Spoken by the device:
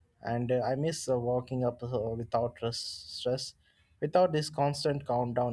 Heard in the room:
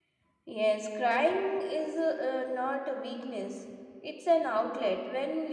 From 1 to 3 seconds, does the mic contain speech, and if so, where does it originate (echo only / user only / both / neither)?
user only